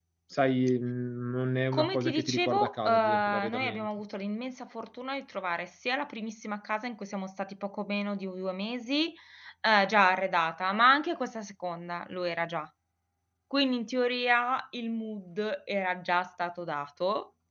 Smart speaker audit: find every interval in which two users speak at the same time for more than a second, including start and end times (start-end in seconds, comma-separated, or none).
1.7-3.9